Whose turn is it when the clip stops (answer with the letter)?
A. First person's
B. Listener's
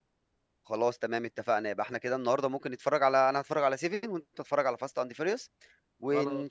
A